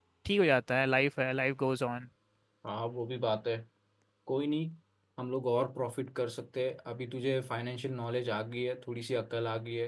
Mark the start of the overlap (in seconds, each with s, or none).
none